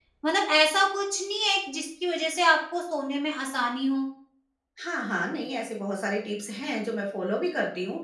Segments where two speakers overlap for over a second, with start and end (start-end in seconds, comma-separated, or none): none